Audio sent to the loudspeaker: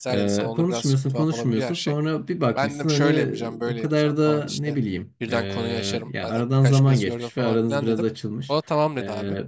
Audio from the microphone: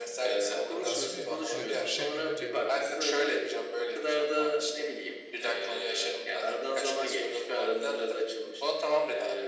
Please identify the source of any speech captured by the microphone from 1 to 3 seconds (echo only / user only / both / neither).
both